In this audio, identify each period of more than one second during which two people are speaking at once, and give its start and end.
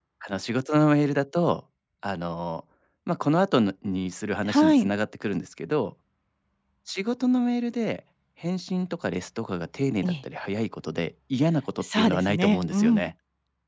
11.8-13.1

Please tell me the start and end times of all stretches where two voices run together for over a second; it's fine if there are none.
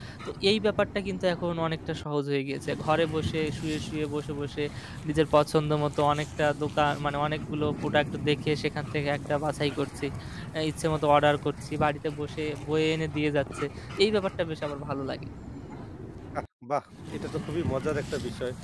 none

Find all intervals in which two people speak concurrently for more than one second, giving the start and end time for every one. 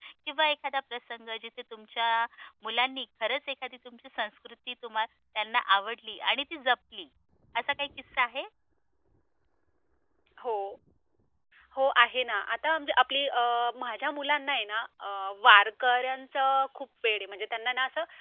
none

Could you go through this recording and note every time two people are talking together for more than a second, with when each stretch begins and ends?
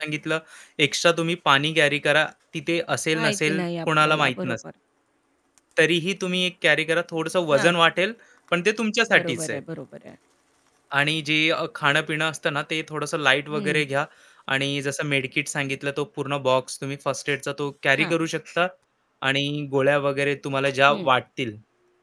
3.1-4.6

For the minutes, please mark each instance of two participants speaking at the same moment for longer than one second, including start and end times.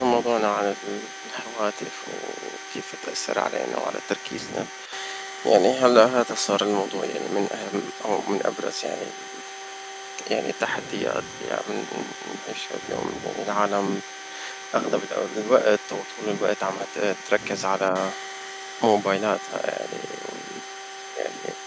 none

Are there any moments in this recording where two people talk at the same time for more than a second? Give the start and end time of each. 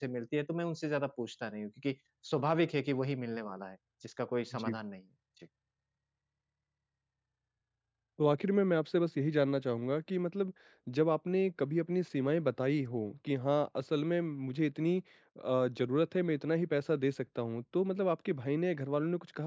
none

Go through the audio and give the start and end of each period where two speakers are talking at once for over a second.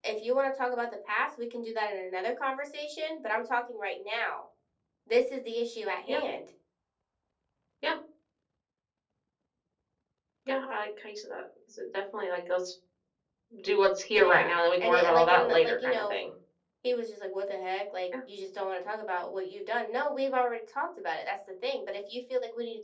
14.1-16.2

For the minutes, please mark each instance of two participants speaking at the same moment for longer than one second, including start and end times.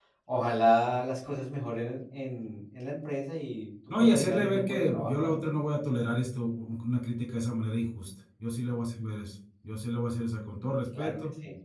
4.0-5.4

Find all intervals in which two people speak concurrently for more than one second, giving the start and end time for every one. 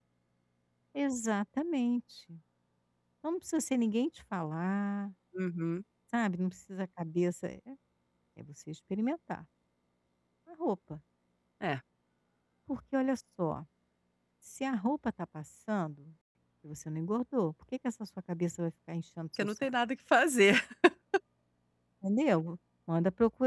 none

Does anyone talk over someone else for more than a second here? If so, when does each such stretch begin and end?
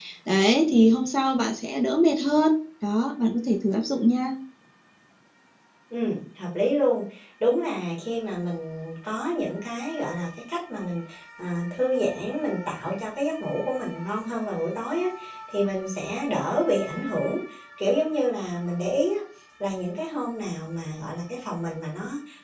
none

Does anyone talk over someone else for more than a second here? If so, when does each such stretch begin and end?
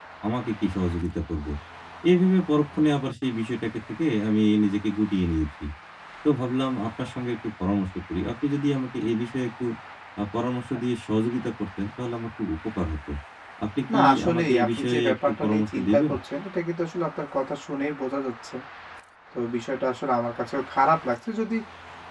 13.9-16.1

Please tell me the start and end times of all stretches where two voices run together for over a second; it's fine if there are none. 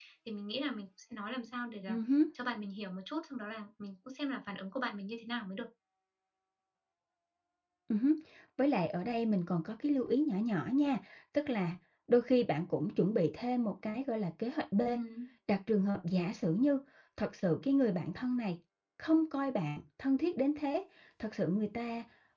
none

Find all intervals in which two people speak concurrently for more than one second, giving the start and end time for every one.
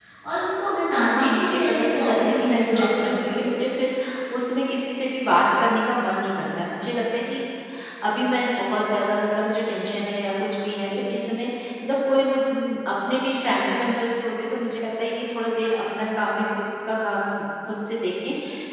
1.2-3.5

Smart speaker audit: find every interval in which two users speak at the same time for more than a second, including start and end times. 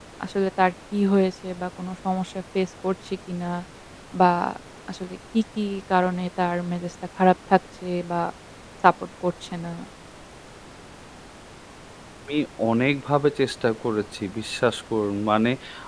none

